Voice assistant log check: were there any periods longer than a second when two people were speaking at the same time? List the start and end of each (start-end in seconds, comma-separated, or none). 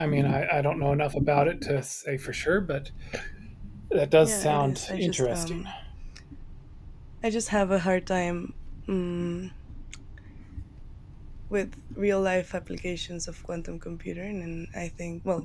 4.2-5.6